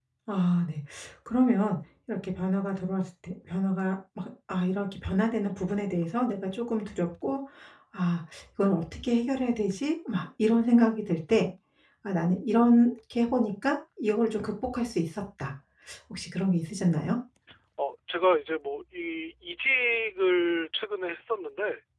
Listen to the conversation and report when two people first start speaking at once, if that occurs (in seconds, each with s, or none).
none